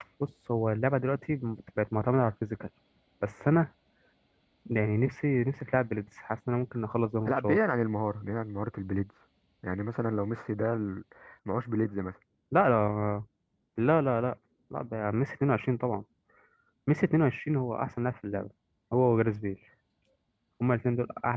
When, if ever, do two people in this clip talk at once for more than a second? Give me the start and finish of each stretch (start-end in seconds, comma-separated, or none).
none